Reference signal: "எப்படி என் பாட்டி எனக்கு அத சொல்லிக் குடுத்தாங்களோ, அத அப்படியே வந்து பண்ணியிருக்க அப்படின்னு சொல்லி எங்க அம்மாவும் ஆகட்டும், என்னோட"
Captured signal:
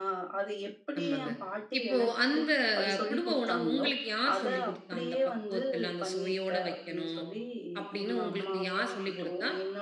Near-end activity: present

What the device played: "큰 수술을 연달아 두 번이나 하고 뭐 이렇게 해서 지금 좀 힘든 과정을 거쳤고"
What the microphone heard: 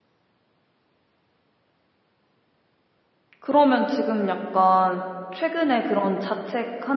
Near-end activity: present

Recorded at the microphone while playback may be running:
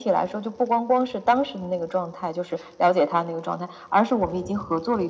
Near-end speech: none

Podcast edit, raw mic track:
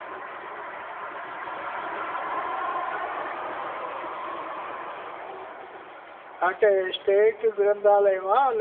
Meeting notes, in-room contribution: present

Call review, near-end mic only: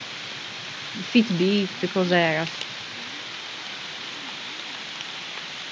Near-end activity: present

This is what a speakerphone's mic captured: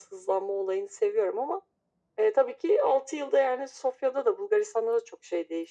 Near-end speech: none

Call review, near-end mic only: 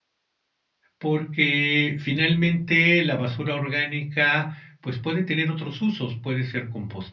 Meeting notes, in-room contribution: present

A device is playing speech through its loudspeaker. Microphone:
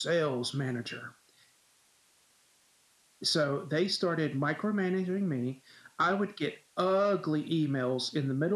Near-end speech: none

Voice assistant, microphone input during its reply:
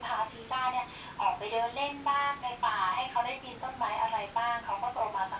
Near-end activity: none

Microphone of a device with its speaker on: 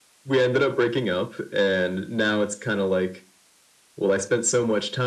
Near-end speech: none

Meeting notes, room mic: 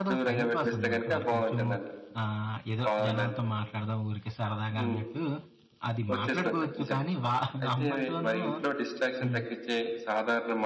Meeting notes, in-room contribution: present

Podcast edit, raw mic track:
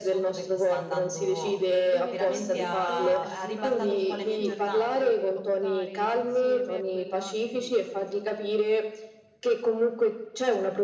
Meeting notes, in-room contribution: present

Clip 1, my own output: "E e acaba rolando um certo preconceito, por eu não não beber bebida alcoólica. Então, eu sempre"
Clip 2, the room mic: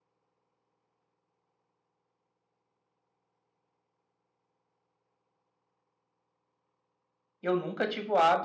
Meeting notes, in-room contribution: present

